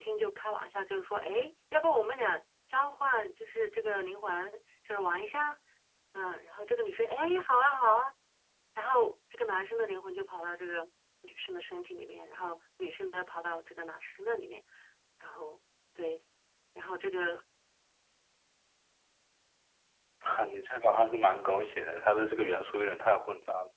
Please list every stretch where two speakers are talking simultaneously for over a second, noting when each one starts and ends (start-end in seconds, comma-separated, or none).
none